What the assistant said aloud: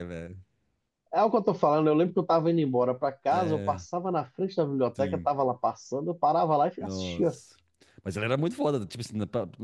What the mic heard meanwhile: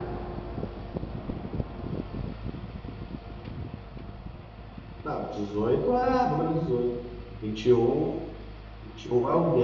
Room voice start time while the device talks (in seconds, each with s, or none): 5.0 s